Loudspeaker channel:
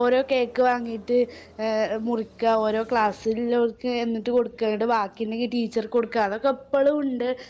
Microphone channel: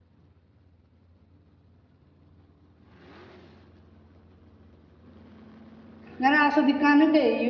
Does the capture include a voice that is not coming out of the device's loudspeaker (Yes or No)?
Yes